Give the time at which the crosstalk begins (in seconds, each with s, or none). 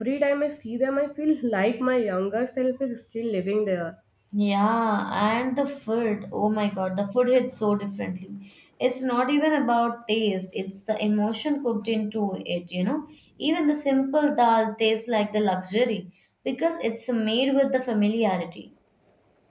none